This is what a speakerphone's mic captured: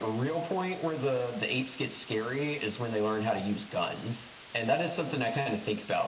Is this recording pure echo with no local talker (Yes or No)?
Yes